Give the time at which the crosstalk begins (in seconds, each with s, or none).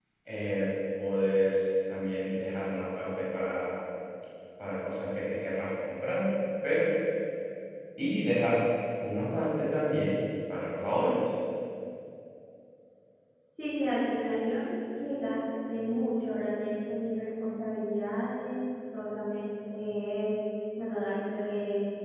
none